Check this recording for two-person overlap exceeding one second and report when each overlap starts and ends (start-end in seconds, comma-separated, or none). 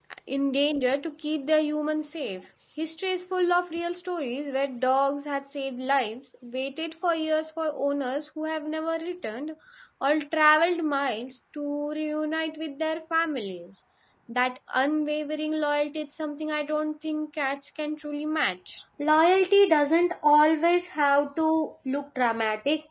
none